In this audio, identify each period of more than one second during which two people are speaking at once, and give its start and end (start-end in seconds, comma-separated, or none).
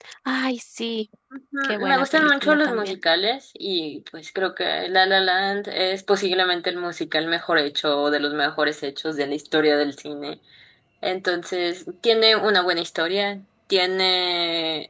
1.6-2.9